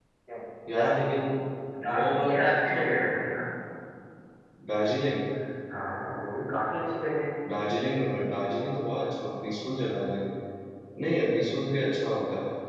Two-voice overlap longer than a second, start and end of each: 1.9-3.1

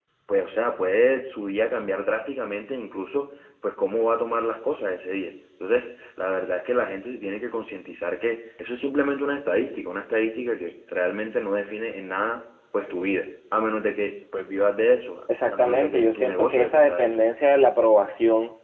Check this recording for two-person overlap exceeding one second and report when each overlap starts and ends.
15.5-17.1

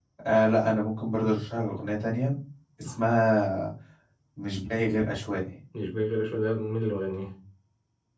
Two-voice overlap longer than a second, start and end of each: none

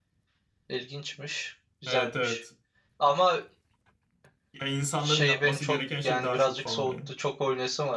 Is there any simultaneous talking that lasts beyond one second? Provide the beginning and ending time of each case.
5.0-7.1

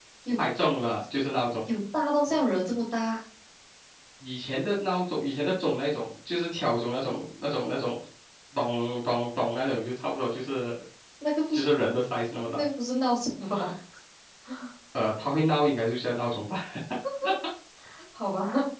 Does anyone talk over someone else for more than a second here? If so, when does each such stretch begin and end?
none

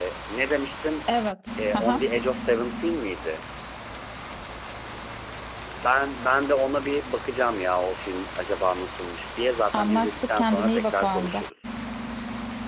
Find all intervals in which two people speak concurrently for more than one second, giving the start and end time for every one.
9.7-11.4

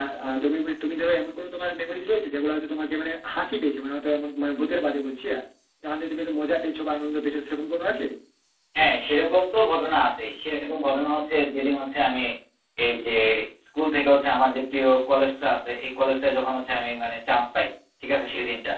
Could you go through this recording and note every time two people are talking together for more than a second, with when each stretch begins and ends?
none

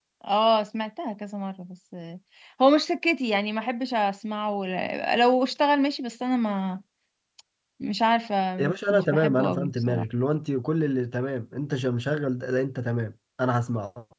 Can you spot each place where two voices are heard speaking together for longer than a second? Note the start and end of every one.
8.6-10.0

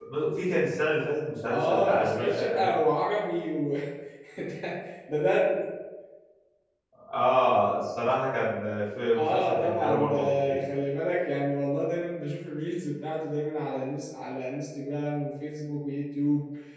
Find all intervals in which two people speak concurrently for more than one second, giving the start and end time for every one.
1.5-2.7, 9.2-10.6

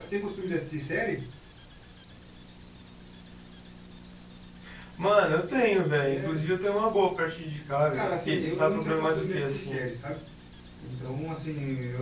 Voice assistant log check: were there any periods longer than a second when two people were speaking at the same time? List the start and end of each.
7.9-9.8

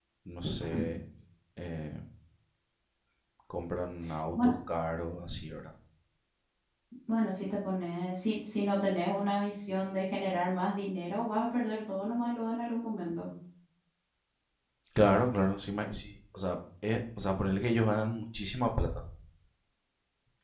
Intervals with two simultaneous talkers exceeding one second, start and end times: none

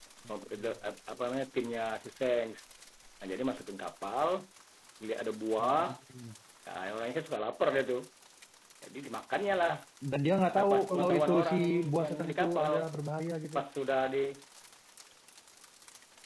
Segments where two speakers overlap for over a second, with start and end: 10.6-12.7

